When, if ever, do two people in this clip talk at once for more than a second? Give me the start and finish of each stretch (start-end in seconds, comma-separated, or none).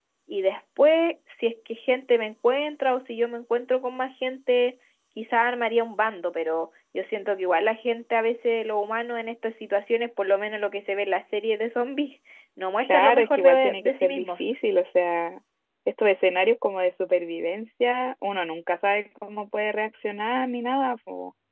12.8-14.4